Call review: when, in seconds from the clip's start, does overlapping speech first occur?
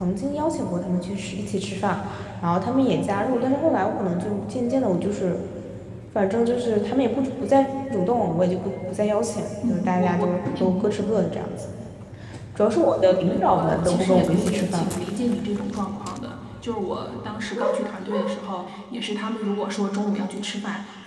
9.6 s

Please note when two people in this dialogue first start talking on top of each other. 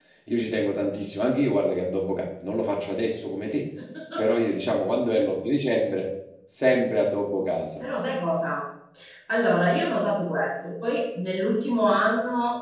none

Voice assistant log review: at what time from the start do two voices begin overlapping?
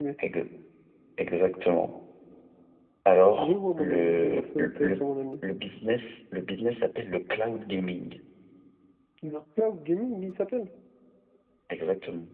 3.4 s

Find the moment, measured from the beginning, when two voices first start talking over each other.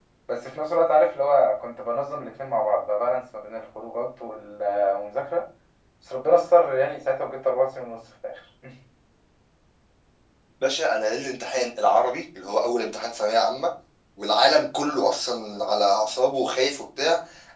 none

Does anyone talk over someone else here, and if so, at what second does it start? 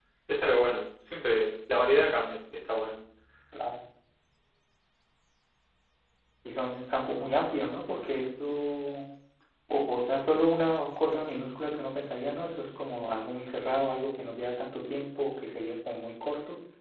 none

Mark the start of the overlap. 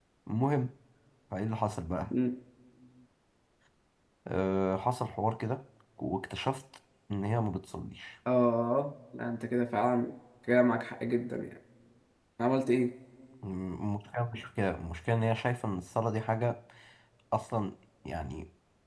none

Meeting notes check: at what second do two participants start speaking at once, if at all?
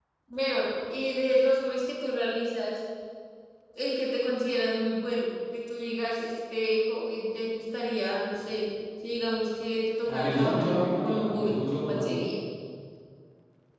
10.1 s

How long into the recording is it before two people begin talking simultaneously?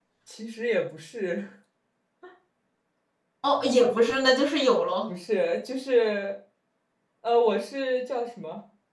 none

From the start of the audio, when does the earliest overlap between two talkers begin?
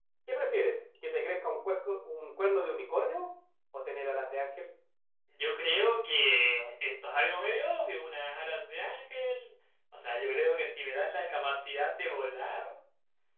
none

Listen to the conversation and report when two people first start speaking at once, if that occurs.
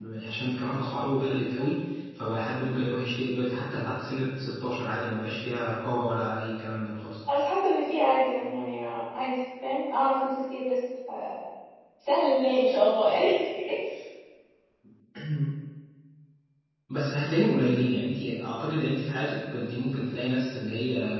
none

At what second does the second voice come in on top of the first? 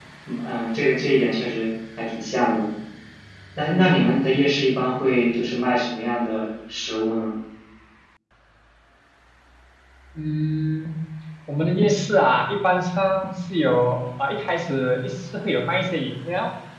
none

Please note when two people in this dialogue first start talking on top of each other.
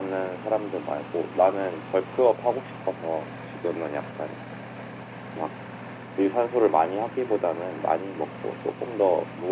none

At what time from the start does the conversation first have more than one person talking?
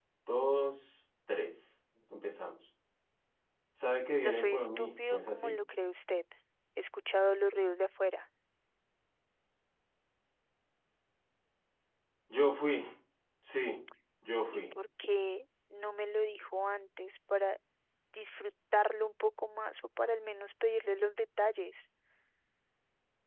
4.2 s

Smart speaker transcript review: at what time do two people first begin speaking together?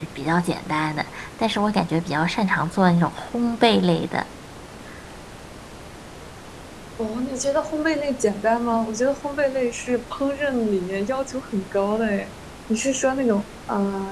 none

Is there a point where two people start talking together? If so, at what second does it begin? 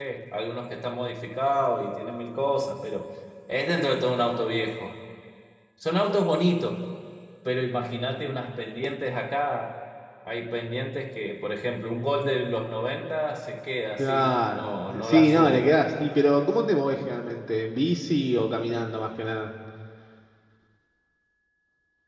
14.0 s

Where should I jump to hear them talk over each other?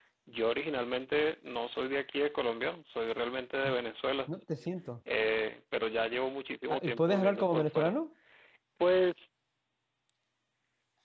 6.7 s

